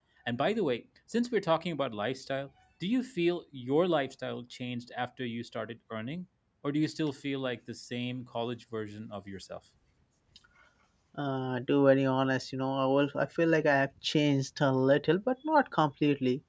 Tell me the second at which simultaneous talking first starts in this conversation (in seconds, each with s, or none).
none